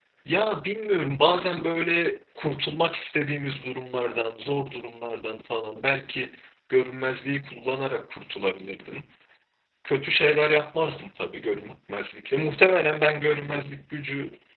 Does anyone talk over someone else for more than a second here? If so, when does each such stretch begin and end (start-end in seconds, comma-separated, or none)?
none